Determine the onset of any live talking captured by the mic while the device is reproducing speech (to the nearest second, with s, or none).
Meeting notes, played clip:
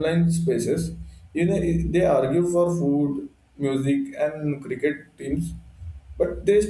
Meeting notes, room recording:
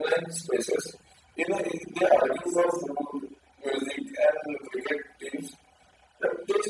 none